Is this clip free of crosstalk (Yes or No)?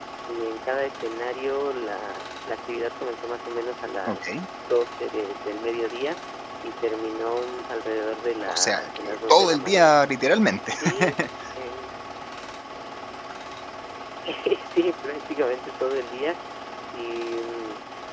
No